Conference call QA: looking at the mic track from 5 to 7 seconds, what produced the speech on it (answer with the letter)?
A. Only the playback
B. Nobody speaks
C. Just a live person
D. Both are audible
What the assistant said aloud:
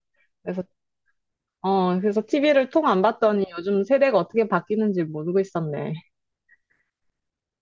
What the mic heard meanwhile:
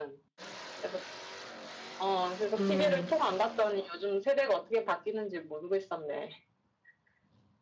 A